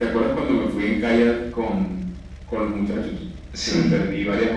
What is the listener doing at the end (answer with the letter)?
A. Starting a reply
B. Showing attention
A